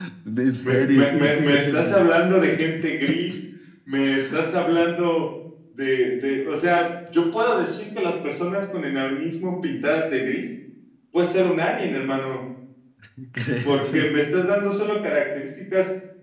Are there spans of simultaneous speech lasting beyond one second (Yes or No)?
Yes